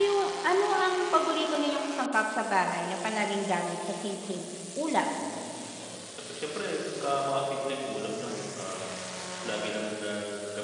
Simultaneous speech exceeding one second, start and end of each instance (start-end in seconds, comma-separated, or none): none